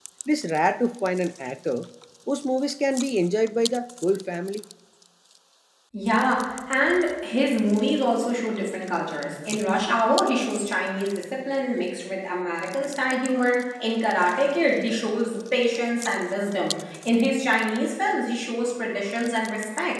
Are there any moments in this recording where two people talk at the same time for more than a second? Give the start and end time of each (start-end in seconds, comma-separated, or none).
none